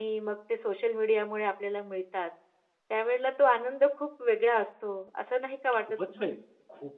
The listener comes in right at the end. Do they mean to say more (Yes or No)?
Yes